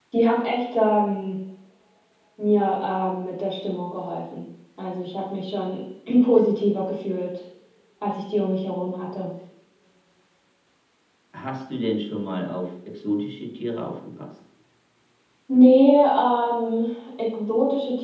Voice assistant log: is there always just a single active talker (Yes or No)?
Yes